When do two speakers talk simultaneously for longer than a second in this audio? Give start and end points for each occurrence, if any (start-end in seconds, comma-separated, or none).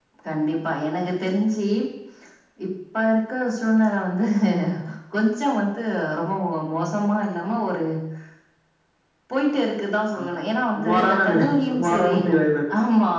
10.8-12.2